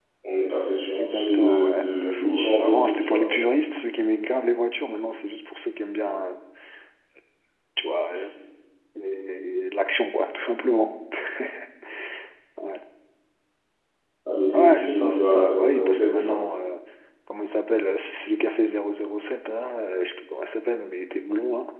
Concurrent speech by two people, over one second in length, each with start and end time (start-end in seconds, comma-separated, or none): 0.9-3.3, 14.5-16.4